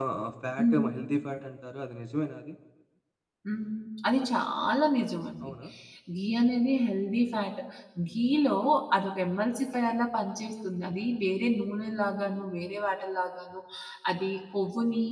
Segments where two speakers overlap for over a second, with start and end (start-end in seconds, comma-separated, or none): none